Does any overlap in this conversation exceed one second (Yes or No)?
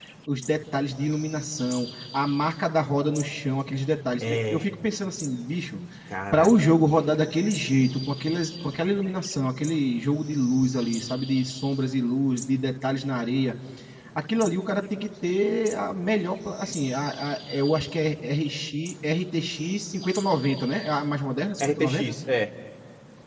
No